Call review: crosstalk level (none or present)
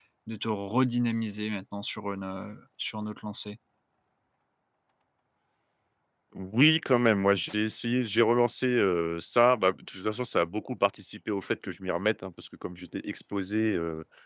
none